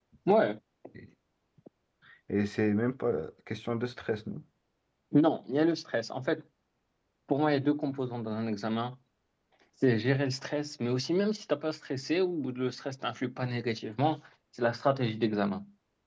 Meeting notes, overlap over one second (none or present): none